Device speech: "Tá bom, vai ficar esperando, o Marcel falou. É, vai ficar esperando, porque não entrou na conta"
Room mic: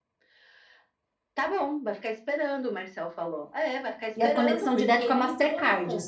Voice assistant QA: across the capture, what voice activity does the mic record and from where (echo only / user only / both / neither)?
both